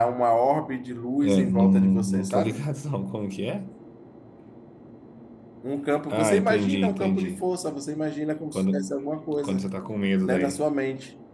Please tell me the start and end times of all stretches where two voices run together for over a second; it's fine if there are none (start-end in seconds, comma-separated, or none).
1.2-2.6, 6.1-7.4